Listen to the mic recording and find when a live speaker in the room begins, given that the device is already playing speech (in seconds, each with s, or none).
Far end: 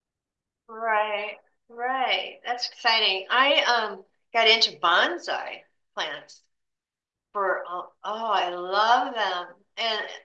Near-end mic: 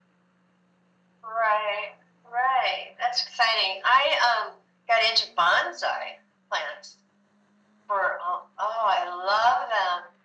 none